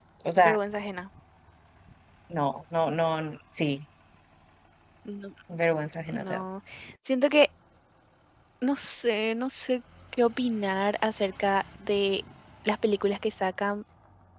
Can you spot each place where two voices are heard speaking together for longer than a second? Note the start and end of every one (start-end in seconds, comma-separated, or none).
none